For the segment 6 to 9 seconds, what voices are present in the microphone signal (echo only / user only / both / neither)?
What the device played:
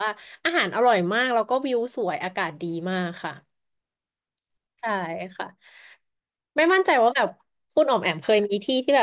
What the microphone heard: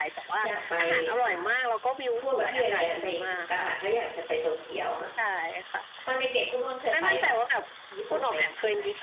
both